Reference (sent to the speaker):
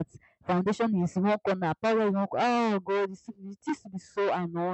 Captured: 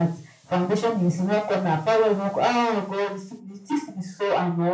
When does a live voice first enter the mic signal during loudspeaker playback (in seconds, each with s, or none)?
none